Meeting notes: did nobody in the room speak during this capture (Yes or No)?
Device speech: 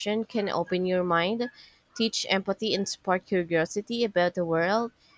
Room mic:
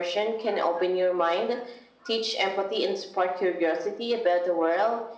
Yes